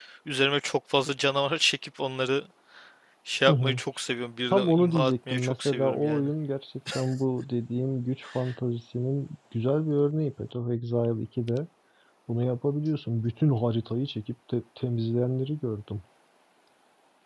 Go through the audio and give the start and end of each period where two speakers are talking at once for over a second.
4.5-6.3

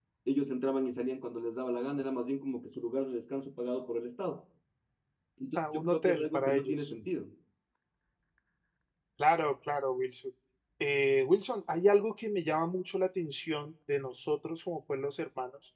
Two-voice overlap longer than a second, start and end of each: 5.5-6.9

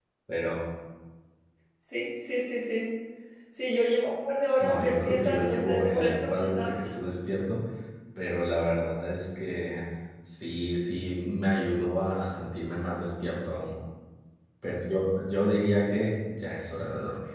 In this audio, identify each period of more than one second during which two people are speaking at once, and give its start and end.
4.6-6.9

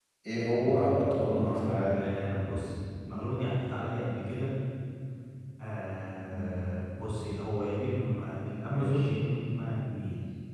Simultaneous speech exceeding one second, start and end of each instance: 0.6-2.0

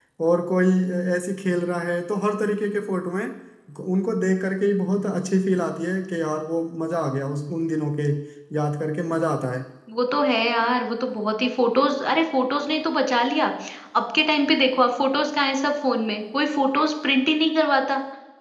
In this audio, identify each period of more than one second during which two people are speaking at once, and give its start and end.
none

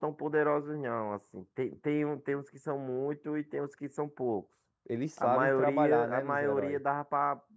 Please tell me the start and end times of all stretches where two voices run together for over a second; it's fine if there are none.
5.2-6.8

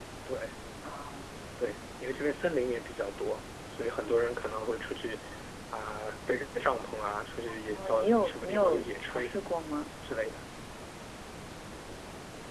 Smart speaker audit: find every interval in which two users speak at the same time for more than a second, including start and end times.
7.7-9.3

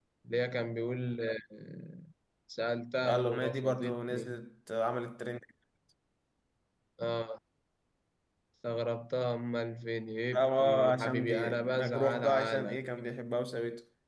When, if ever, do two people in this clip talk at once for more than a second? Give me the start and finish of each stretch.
3.0-4.4, 10.4-12.8

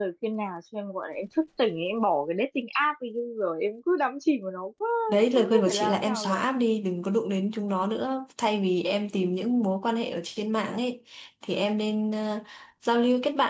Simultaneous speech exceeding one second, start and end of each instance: 5.1-6.4

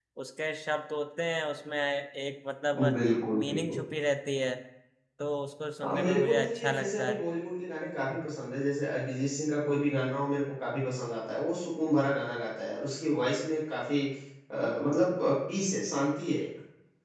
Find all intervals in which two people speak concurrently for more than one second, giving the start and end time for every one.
5.8-7.2

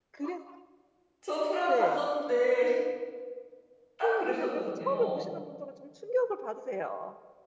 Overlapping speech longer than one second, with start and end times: 4.0-5.3

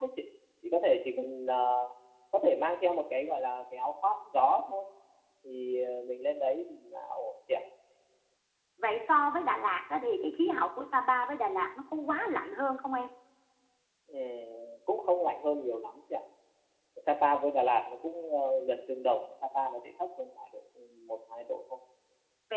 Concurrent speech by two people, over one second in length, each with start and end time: none

